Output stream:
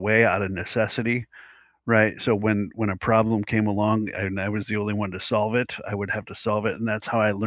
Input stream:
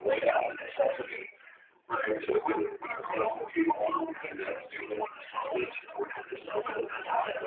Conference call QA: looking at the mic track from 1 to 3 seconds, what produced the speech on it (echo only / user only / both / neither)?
echo only